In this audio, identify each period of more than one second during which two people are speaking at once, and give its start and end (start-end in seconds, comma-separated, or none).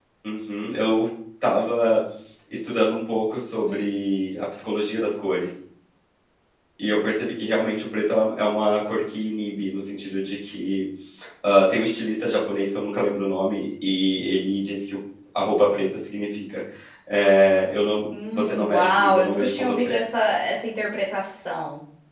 18.3-19.9